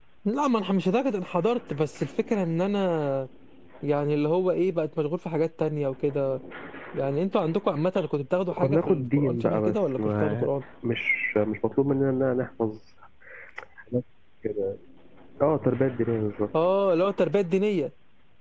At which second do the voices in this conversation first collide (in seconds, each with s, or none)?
8.5 s